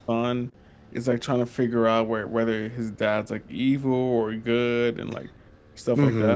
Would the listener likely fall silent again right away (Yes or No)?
No